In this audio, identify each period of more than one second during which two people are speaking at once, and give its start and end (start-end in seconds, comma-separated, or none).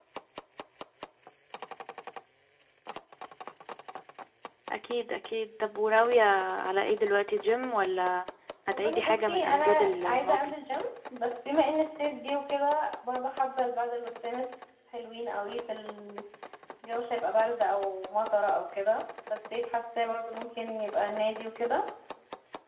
8.7-10.6